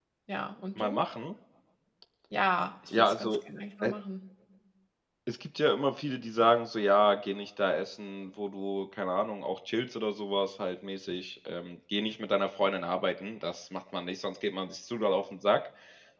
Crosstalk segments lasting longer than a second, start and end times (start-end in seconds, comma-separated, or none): none